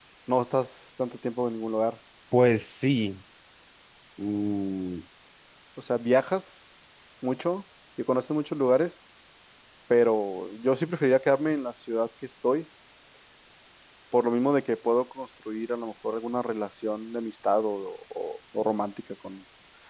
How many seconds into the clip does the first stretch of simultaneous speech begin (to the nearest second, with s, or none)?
none